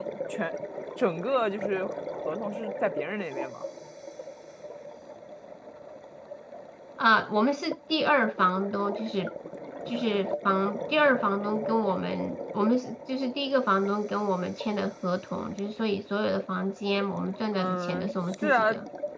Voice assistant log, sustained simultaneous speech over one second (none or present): present